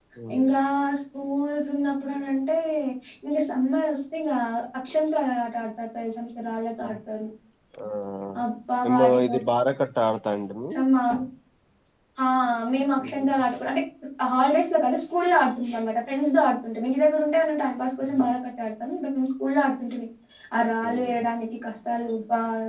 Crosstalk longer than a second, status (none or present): none